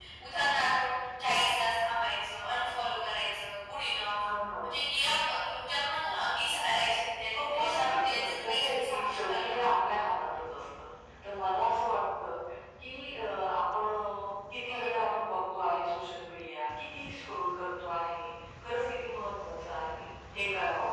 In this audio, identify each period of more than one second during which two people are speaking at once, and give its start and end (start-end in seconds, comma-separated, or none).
7.3-9.6